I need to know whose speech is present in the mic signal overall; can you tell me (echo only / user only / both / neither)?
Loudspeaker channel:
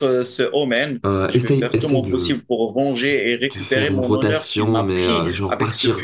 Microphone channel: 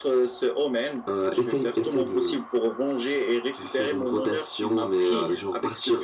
echo only